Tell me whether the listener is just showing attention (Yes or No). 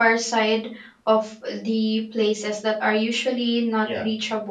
Yes